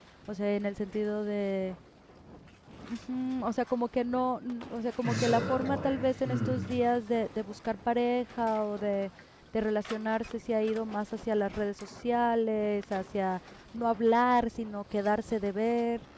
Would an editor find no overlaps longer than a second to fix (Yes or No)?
No